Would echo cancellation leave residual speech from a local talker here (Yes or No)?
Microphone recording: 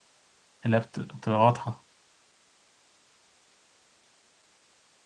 Yes